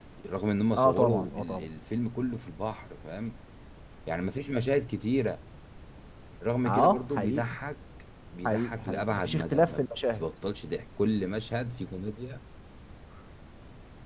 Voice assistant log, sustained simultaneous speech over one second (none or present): present